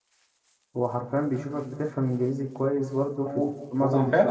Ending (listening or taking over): taking over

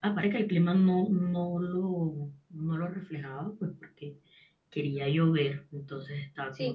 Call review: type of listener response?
taking over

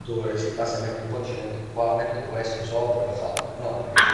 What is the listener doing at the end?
taking over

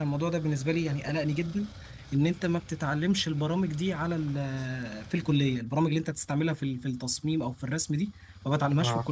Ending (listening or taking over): listening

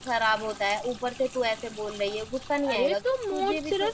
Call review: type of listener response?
taking over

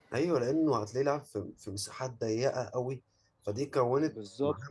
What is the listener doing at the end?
listening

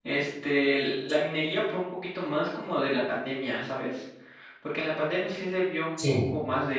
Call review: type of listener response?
listening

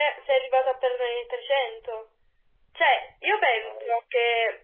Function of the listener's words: listening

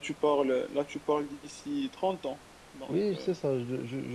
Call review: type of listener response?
taking over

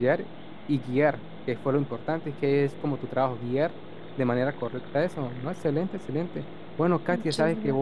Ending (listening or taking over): listening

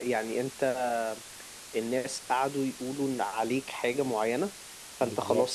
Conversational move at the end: listening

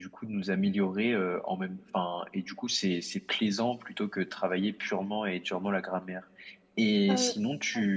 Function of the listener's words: listening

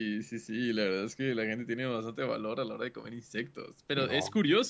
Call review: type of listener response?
listening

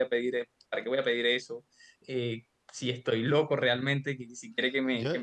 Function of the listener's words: taking over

